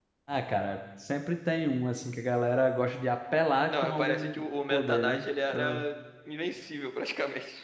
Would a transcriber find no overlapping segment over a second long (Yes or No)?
No